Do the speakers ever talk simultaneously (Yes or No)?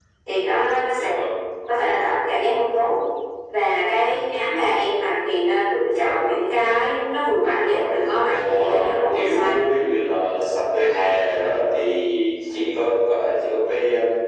Yes